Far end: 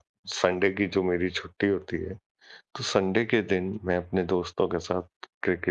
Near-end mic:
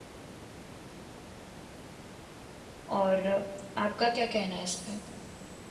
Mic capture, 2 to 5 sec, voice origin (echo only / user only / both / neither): user only